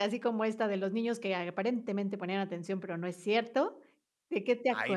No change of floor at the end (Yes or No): No